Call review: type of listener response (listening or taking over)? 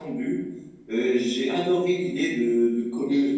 listening